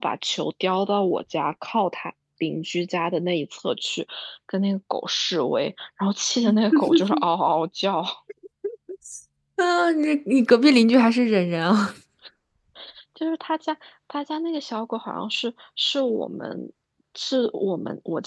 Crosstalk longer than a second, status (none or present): none